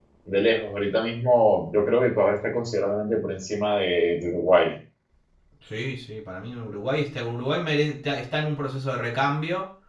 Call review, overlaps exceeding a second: none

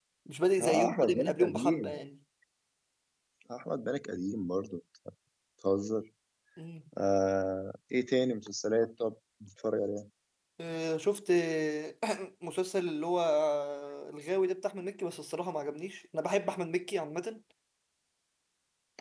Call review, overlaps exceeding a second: present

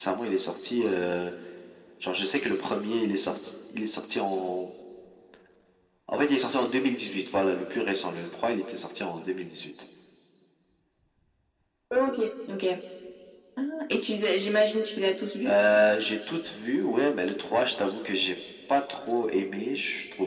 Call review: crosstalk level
none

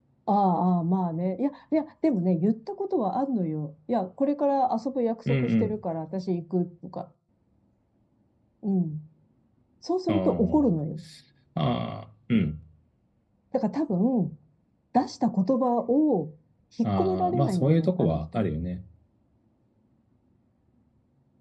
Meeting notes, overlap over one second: present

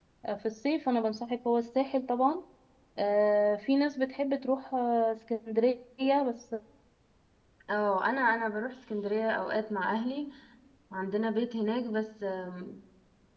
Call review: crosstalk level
none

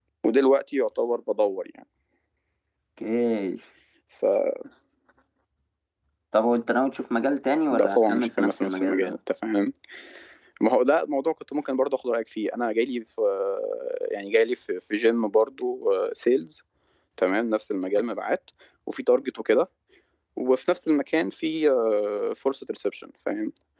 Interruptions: present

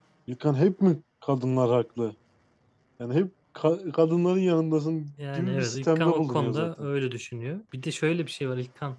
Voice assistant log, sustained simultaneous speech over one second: present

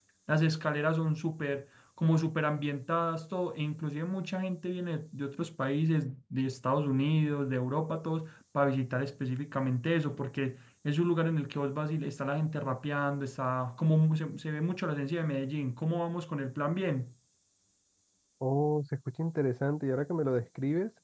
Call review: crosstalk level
none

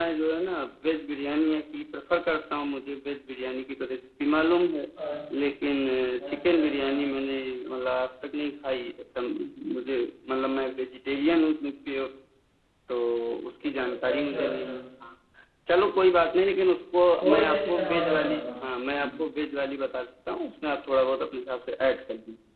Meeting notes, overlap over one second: present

